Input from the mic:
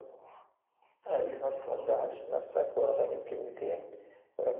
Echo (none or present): present